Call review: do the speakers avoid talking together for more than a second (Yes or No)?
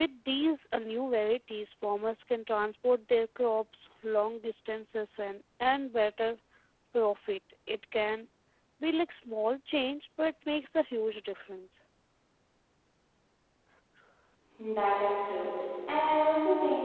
Yes